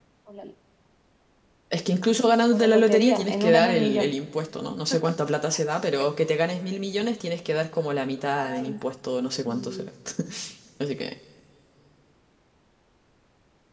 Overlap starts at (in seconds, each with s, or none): 2.5 s